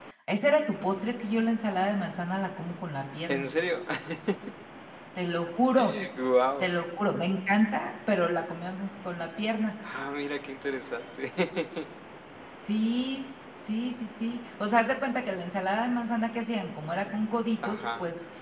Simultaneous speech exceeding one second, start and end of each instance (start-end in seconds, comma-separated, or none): none